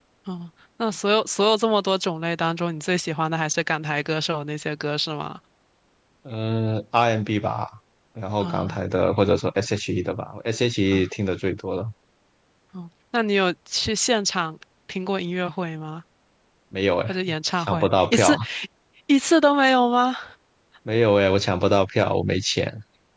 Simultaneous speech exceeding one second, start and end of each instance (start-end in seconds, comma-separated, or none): 17.1-18.4